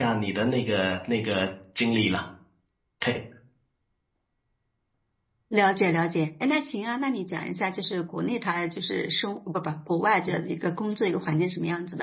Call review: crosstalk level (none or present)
none